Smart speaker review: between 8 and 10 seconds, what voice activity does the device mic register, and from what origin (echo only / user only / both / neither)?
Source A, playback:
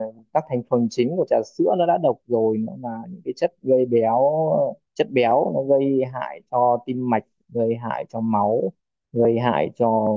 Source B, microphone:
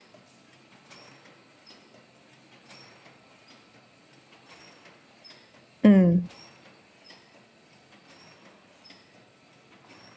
neither